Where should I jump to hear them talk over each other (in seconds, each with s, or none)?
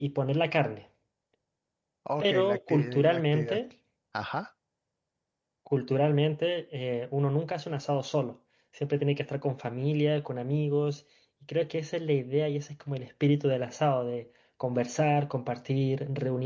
2.2 s